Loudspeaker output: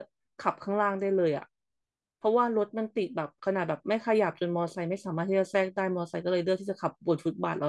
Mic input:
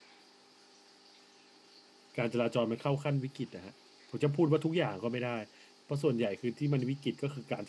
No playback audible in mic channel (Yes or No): Yes